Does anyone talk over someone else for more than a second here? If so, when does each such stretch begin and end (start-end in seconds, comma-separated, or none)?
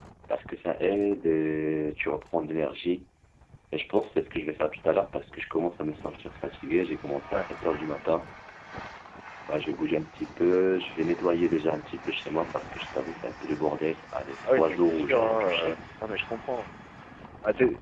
14.5-15.8